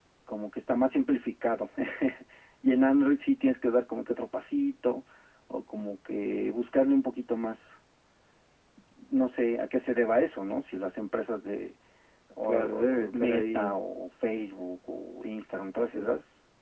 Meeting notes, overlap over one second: present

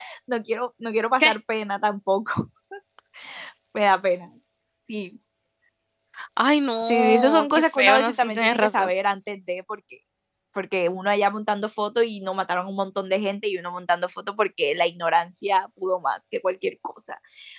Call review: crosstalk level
present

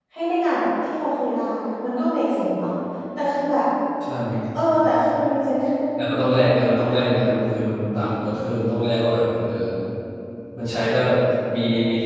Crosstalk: none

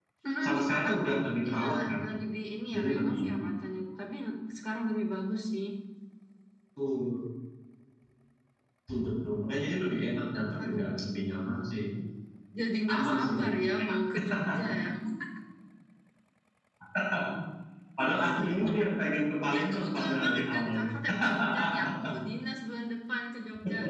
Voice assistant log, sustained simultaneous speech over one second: present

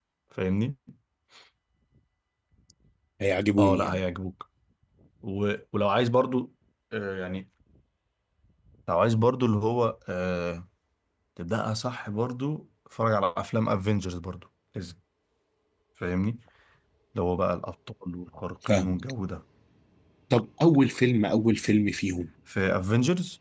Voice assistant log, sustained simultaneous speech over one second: none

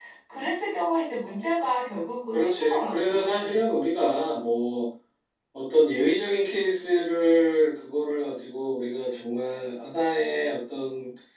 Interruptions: present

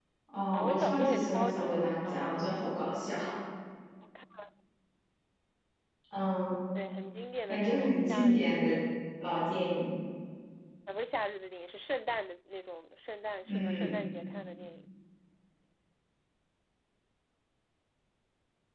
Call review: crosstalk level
present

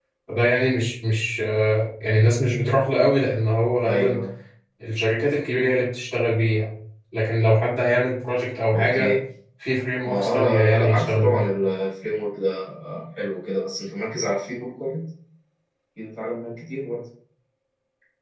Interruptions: present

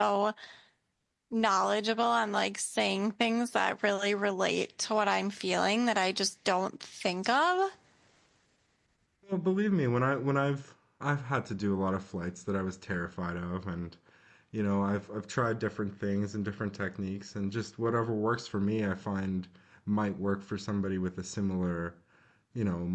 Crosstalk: none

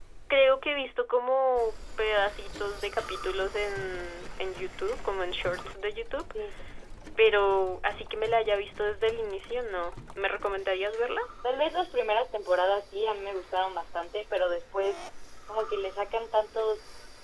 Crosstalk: none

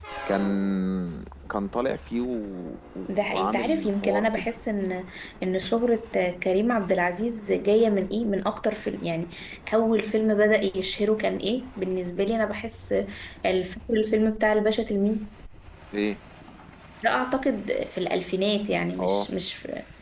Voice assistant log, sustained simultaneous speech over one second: present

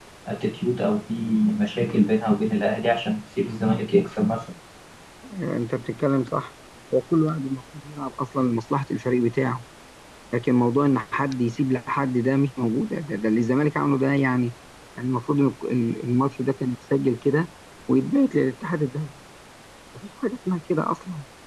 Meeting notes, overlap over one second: none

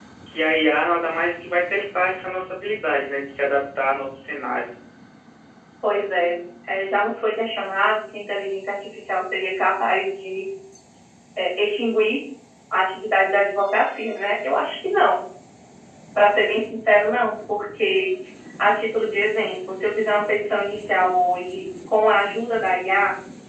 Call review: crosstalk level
none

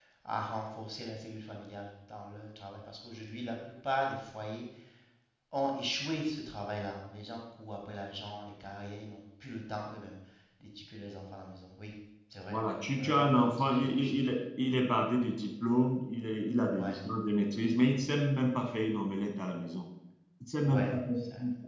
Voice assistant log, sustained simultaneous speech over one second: present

